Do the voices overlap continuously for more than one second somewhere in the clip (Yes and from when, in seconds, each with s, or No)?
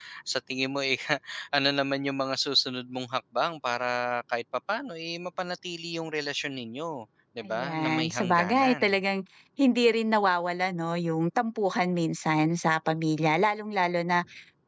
Yes, from 7.4 s